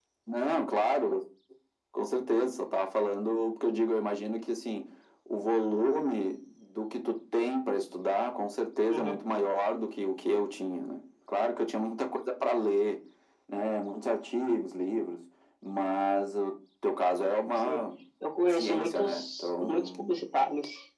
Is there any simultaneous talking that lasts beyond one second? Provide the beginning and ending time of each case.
18.5-19.9

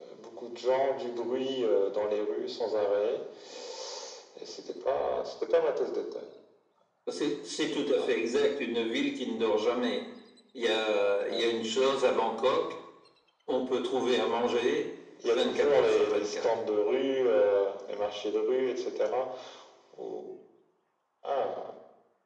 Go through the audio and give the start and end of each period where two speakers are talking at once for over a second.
15.2-16.4

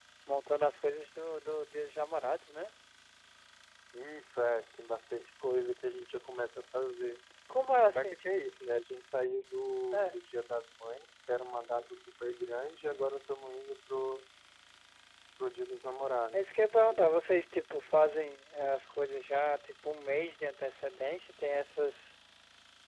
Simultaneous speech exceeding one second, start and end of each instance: none

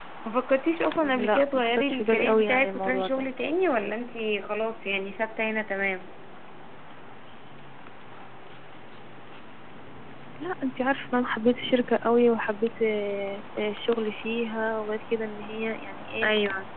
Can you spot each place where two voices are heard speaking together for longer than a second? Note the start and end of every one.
1.0-3.2

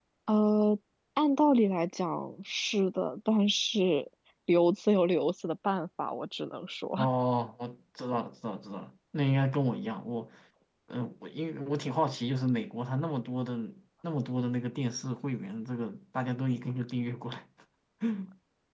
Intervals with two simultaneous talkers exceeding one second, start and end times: none

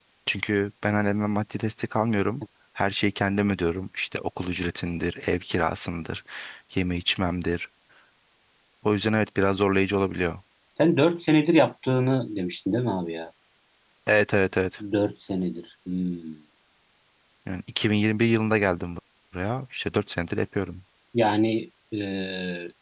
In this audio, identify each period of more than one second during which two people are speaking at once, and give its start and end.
none

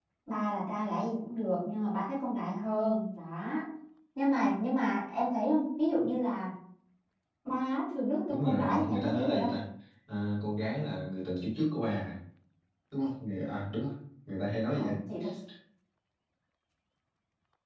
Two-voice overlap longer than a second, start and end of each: 8.3-9.5

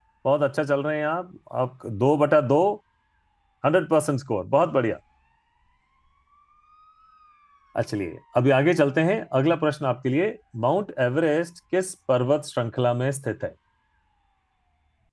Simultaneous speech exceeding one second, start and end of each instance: none

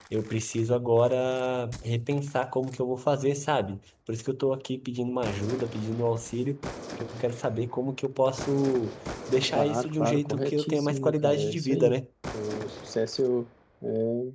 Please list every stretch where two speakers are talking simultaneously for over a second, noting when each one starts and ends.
9.6-12.0

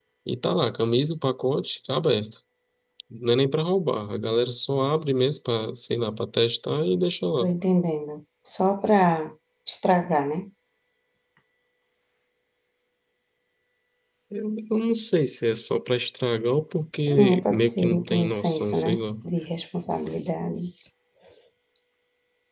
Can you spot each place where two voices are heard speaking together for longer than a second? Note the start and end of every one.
17.1-19.0

